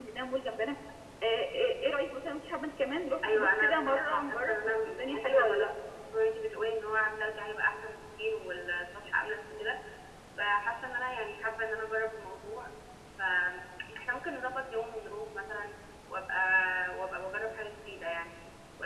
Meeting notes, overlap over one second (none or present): present